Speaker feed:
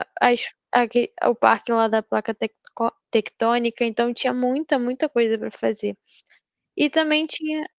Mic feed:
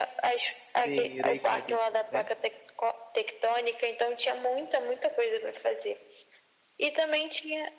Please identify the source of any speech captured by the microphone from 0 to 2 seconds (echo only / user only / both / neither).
both